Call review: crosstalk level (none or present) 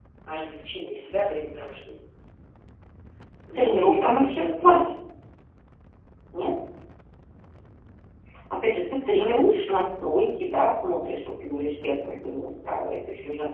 present